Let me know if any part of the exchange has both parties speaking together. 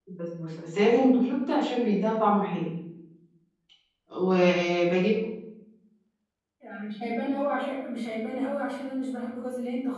No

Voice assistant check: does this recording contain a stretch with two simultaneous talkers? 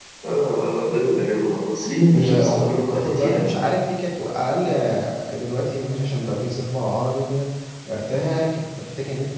Yes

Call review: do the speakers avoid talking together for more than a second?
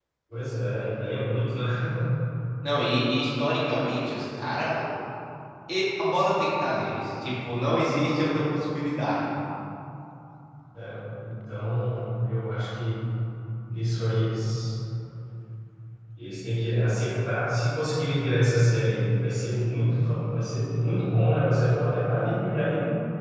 Yes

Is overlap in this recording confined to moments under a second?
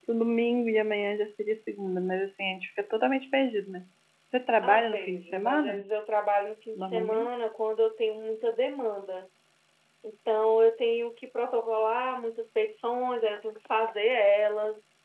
No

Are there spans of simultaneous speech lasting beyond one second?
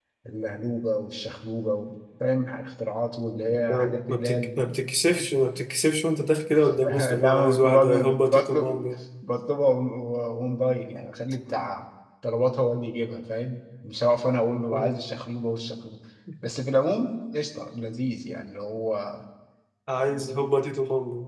Yes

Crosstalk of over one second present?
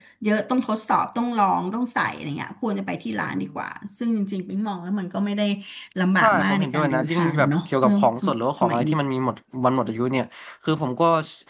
Yes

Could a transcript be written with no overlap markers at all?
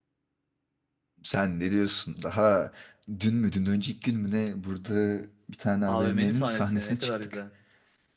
No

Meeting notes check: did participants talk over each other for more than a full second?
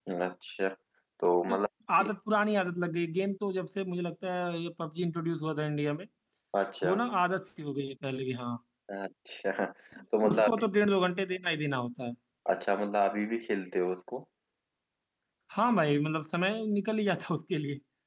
No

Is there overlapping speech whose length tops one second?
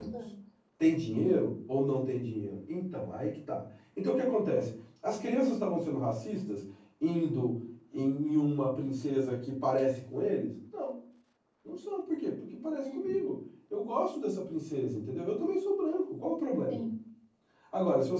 No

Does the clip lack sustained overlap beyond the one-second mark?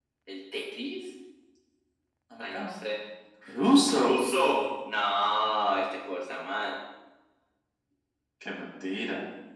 Yes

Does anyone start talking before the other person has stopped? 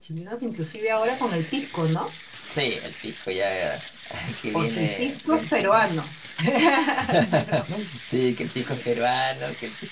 Yes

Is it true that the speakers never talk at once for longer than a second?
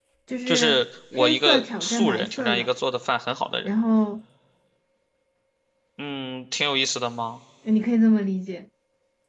No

